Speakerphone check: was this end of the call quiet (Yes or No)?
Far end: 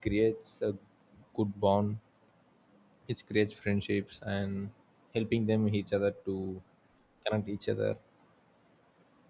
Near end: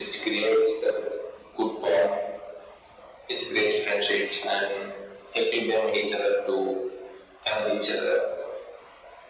Yes